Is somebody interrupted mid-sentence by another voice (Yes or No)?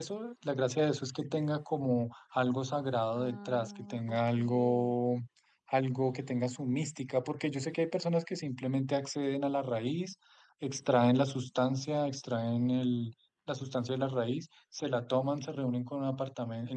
Yes